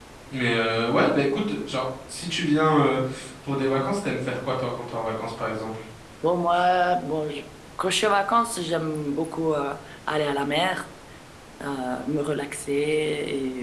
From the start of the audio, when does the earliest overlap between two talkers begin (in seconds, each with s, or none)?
none